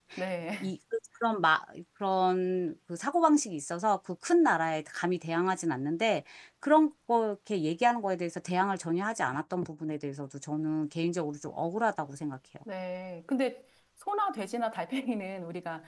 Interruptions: none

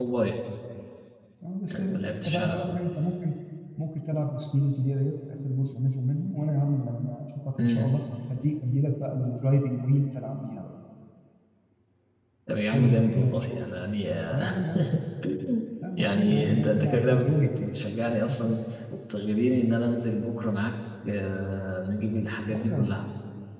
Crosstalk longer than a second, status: present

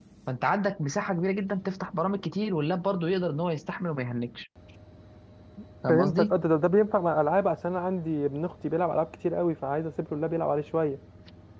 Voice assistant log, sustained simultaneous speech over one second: none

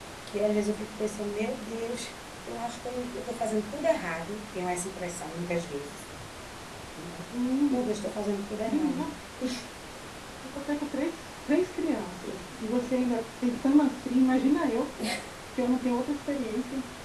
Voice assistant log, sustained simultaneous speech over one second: none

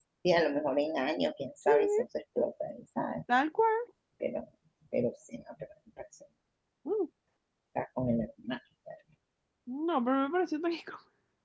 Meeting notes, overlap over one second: none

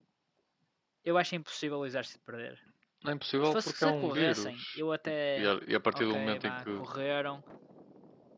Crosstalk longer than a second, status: present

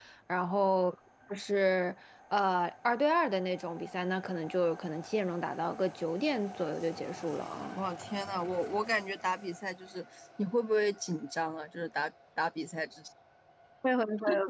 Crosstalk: none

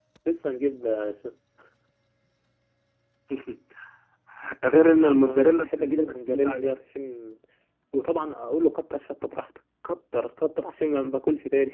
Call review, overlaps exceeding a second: present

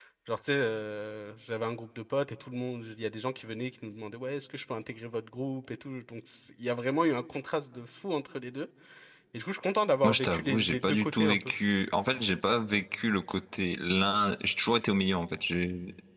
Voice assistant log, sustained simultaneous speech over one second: present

